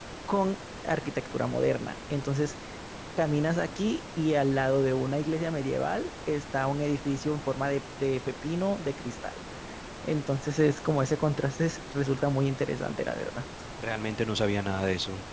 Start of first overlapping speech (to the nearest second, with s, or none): none